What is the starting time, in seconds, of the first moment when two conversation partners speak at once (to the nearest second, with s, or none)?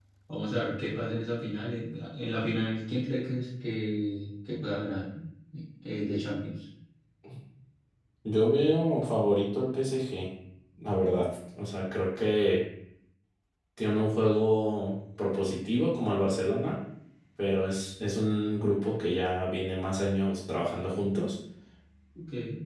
none